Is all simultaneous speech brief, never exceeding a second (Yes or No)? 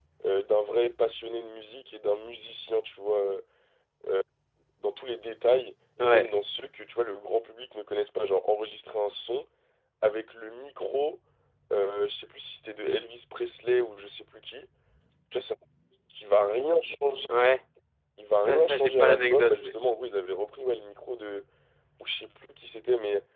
No